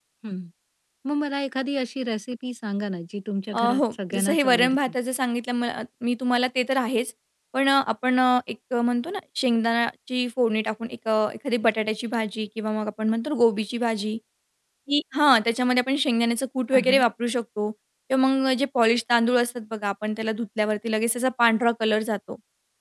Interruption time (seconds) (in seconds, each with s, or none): 3.5 s